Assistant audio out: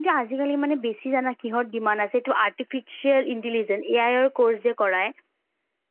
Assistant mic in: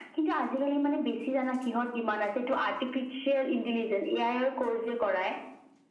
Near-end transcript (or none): none